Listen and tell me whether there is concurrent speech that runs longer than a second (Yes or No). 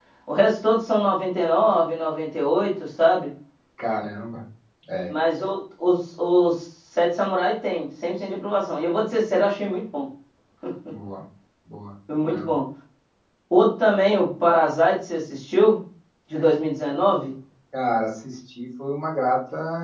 No